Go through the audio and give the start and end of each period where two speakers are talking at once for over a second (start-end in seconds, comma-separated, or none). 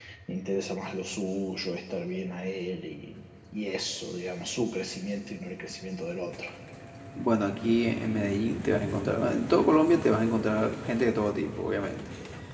none